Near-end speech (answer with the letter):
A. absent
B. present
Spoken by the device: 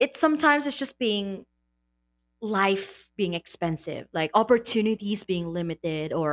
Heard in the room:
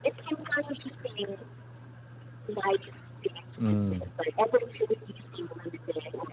B